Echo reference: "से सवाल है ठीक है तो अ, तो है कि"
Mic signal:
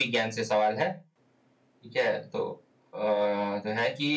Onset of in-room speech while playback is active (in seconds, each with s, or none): none